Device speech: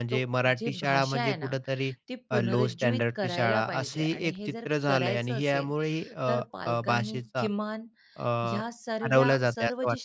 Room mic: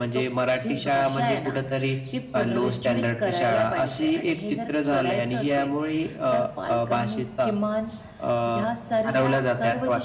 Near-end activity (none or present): none